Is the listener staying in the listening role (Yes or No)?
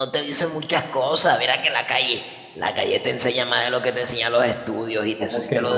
No